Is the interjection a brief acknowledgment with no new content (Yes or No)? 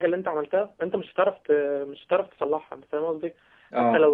Yes